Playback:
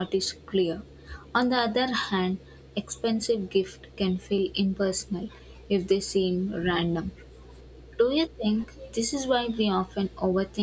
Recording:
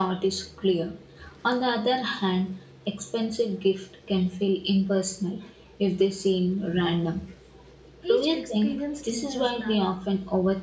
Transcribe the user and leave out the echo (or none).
each experience teaches balance.